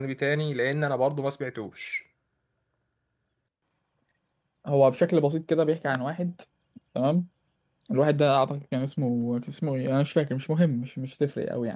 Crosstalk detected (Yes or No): No